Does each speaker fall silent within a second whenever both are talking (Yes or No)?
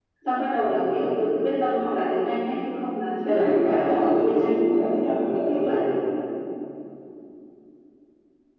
No